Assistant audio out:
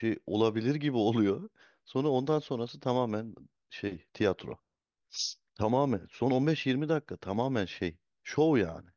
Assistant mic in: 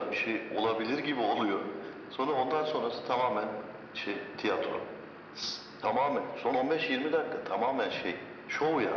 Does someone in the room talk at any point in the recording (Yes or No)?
No